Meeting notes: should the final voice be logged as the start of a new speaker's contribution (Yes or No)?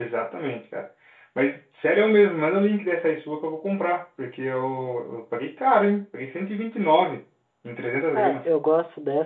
Yes